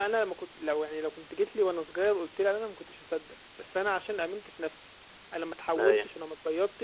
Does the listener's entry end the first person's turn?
No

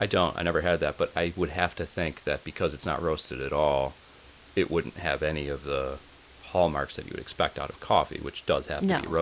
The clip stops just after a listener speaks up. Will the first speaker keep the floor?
Yes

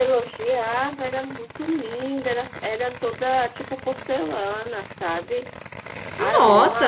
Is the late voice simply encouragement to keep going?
No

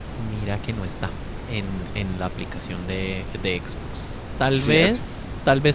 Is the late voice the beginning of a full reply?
No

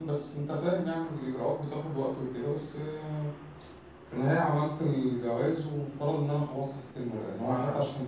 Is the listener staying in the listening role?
Yes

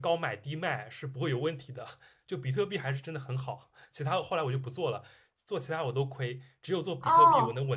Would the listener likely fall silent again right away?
No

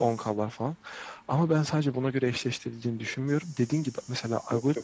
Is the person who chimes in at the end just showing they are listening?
Yes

